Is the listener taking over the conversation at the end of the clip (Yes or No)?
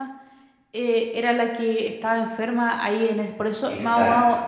No